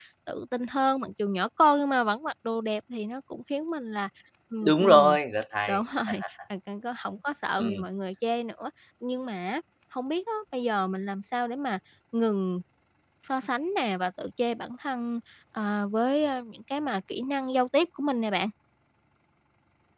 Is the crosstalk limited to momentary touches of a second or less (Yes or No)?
Yes